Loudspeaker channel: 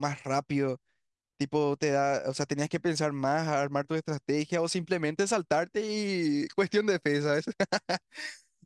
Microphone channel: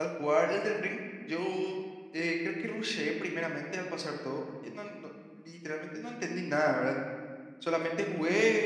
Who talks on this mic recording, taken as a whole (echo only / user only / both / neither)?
user only